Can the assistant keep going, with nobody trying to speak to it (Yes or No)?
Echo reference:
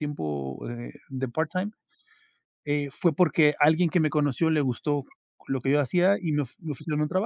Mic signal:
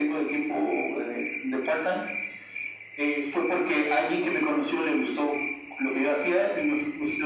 Yes